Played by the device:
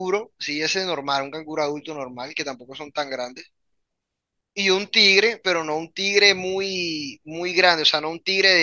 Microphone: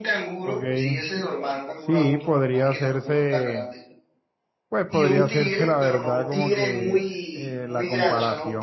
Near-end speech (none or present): present